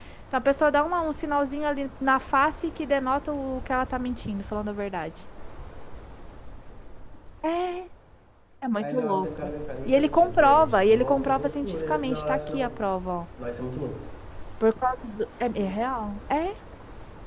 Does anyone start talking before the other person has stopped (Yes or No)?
Yes